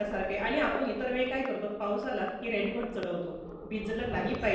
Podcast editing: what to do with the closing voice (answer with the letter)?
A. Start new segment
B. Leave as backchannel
B